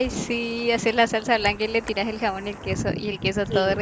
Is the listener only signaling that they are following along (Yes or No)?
No